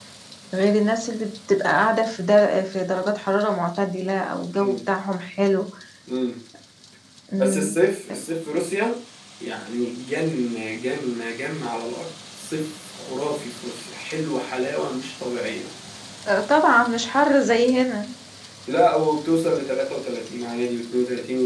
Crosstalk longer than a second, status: none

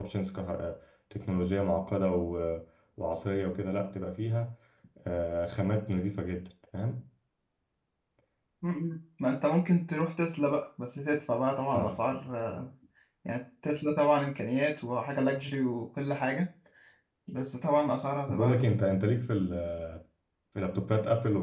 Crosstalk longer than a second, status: none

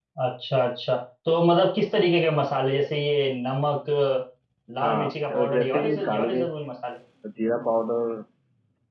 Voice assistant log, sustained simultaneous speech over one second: present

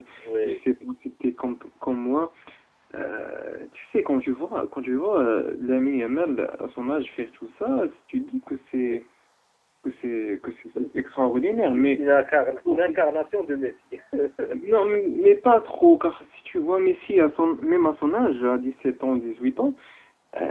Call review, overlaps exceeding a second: none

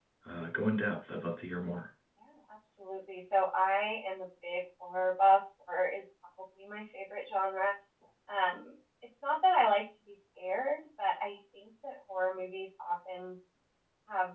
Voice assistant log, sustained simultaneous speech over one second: none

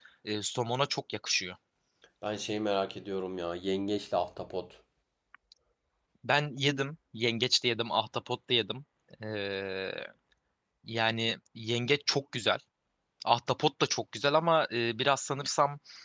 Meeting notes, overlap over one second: none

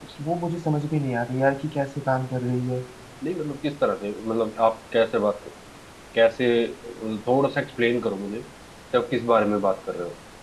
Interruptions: none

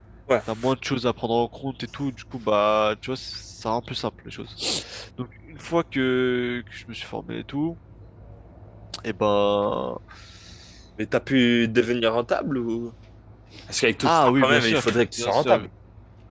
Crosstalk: present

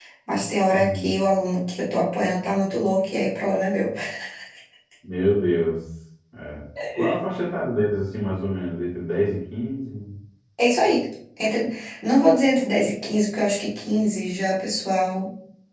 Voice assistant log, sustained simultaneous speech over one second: none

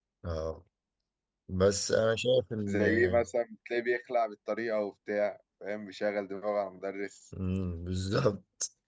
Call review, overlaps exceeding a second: none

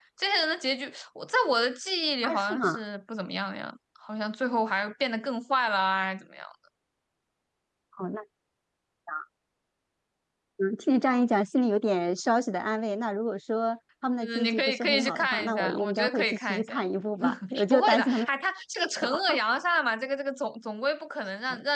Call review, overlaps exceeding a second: present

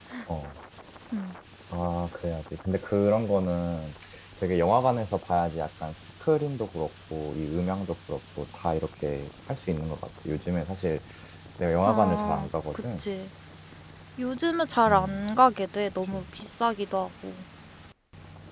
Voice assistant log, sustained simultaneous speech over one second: present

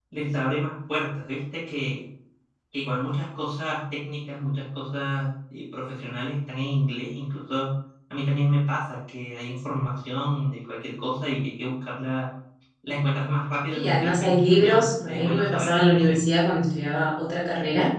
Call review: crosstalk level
present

